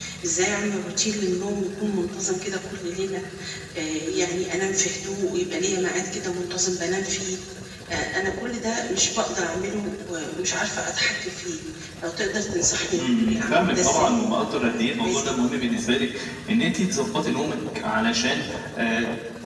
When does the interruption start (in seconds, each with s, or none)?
12.9 s